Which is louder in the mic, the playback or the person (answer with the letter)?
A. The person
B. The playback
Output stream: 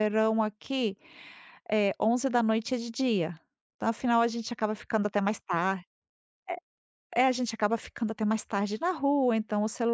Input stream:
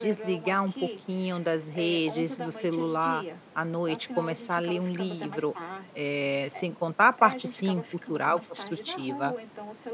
A